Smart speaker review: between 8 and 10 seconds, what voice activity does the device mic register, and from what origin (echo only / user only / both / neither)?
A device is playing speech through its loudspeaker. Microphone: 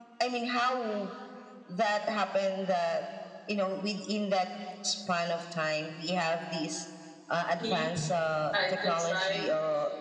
both